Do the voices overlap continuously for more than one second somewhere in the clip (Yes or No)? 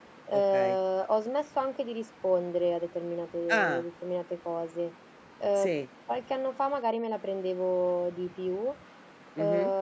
No